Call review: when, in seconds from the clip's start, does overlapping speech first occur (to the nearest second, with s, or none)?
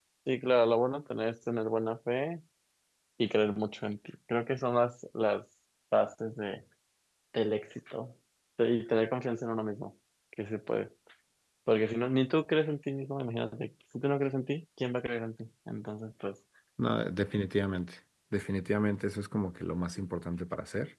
none